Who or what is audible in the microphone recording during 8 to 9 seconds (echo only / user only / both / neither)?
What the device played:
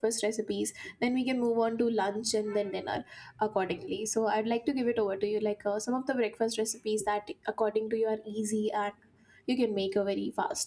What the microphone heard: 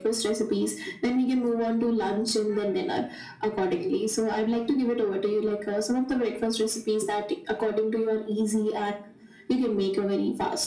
echo only